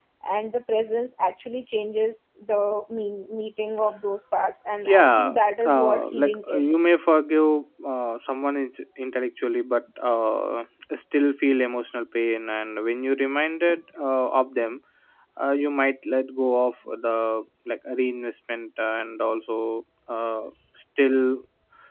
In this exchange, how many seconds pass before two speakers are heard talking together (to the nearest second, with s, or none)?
5 s